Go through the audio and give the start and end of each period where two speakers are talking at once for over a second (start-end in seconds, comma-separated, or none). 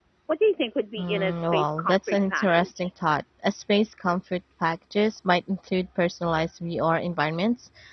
1.0-2.9